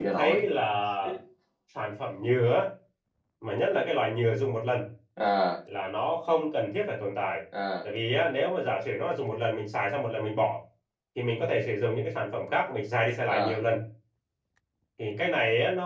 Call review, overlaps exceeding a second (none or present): none